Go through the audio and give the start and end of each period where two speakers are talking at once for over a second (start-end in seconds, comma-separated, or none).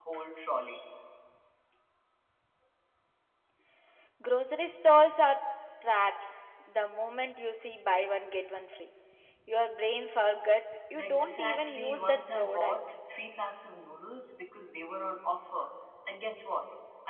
11.0-12.8